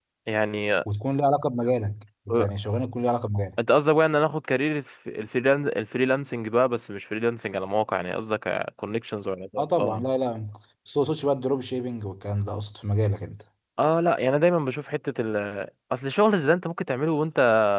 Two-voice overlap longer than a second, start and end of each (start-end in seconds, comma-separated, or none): none